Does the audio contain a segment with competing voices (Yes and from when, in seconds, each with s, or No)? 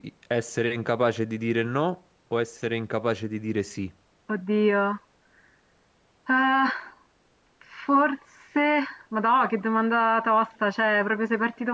No